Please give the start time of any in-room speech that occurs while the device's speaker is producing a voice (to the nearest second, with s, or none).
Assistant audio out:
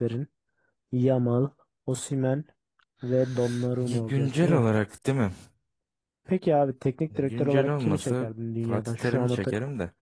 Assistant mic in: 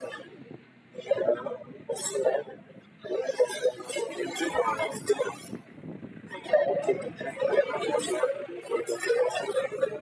none